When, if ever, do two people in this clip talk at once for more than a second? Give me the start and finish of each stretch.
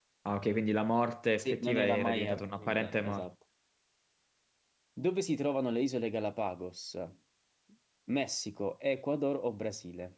1.4-3.3

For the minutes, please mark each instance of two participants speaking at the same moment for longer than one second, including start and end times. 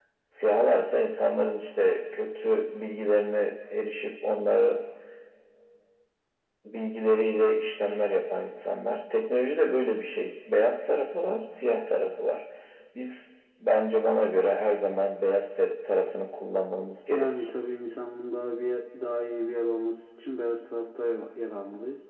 none

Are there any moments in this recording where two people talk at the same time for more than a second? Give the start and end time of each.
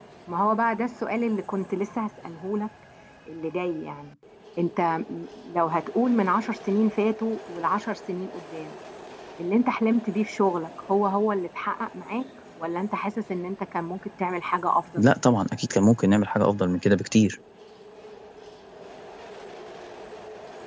none

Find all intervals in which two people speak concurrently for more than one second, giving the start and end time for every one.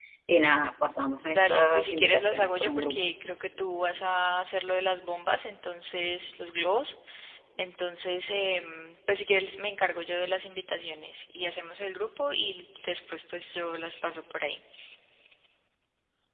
1.2-3.0

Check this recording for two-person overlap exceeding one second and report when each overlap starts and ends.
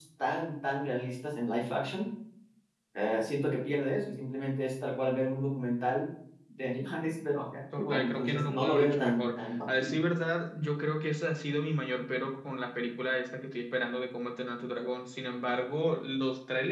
7.8-10.0

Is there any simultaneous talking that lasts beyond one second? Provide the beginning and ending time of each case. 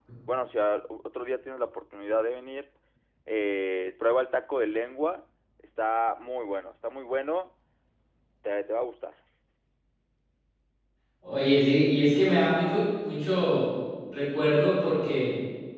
none

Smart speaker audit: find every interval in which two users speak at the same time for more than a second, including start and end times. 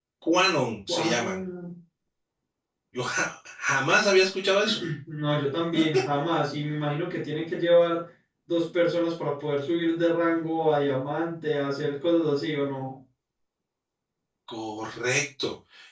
none

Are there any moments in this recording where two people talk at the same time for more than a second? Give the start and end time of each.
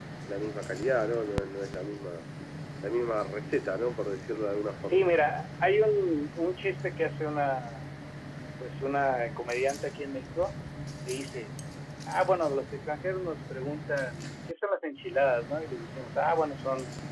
none

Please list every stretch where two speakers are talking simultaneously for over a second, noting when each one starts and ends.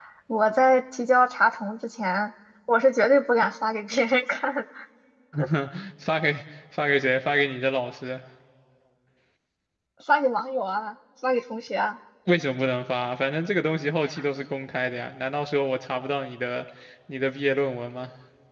none

